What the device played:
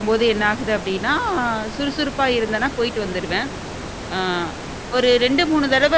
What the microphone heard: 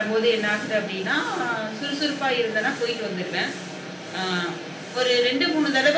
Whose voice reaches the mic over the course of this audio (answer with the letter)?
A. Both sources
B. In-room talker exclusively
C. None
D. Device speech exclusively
D